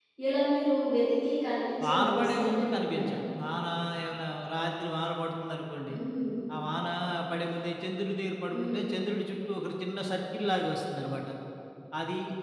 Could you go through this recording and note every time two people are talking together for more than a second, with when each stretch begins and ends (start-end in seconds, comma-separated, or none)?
1.8-3.1